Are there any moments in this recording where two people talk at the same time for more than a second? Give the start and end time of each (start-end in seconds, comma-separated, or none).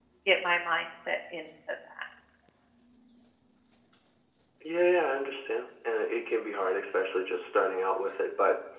none